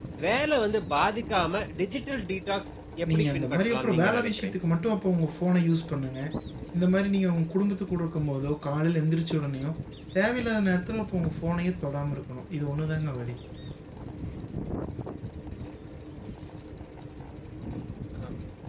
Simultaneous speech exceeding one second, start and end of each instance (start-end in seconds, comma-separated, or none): 3.1-4.5